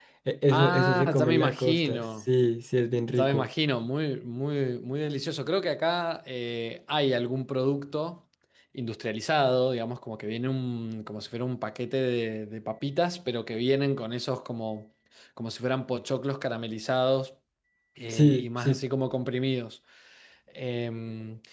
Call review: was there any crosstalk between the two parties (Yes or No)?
Yes